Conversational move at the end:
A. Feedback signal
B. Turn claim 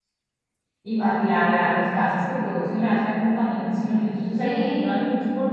A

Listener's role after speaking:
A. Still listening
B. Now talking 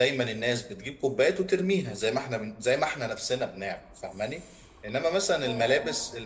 A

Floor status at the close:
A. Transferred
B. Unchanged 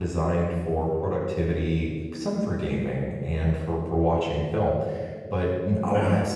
B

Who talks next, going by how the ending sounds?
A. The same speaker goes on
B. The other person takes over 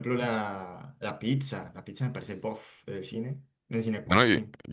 B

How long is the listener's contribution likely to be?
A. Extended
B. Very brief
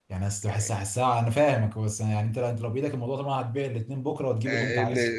A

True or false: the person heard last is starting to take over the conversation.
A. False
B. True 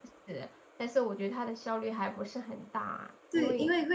B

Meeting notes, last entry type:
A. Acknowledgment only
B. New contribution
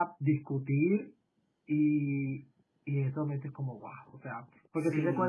A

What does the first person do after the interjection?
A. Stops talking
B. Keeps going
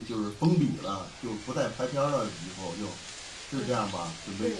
A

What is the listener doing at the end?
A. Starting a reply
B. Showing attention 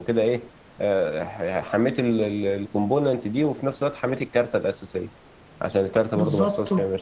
A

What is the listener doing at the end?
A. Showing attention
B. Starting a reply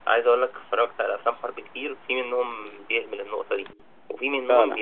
A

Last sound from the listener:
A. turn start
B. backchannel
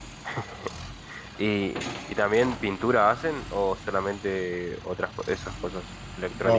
A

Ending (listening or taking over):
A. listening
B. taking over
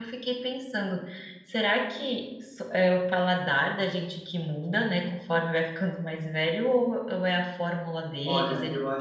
B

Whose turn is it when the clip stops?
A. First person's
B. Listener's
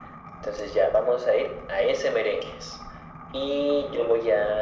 A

